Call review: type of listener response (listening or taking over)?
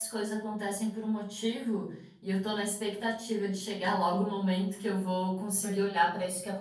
listening